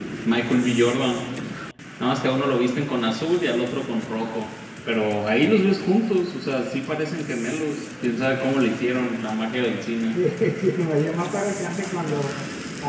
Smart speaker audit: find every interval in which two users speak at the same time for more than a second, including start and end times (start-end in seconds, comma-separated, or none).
none